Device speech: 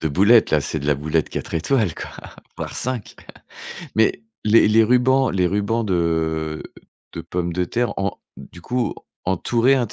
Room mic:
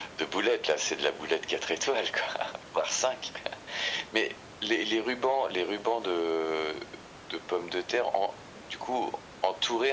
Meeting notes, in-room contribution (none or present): none